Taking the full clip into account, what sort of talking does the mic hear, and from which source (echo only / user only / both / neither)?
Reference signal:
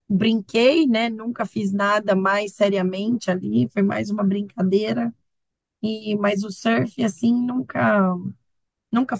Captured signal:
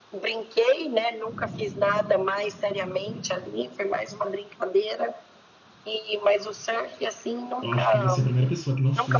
both